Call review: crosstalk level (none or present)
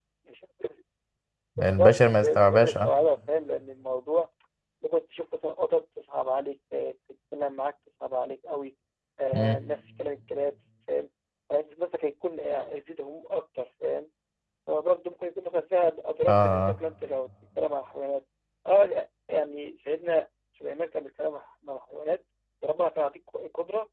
present